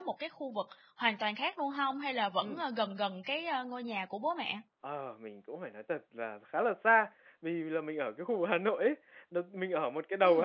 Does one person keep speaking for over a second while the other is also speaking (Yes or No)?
No